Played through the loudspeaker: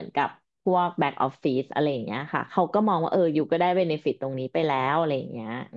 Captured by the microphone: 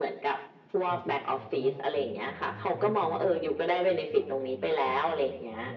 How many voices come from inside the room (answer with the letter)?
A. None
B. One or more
B